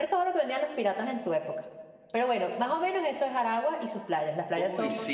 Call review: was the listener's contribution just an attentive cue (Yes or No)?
No